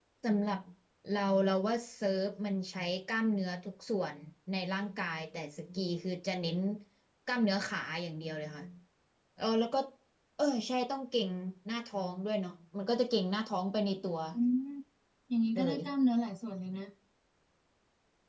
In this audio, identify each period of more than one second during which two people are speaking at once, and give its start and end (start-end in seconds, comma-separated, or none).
none